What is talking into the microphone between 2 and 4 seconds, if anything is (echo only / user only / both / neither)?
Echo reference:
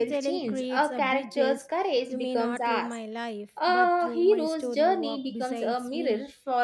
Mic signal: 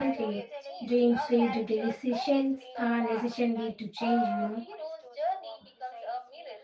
both